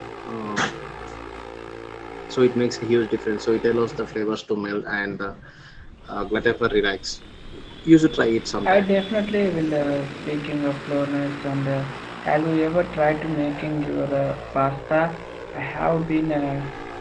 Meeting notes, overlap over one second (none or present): none